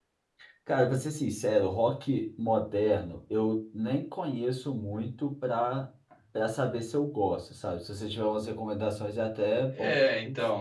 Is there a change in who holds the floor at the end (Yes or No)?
Yes